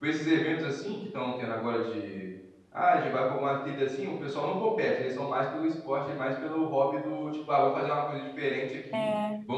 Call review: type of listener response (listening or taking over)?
listening